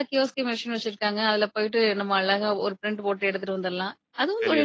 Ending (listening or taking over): taking over